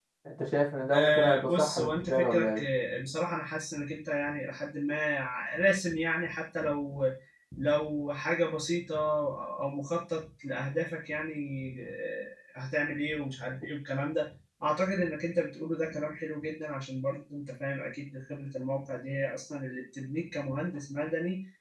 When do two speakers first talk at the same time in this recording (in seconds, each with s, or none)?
0.9 s